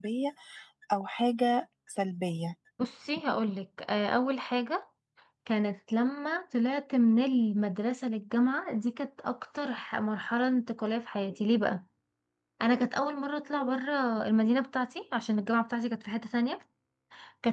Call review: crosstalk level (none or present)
none